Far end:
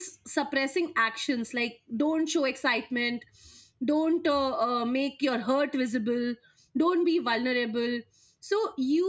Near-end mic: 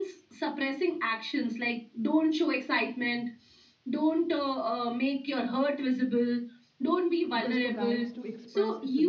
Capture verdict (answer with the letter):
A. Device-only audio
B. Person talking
B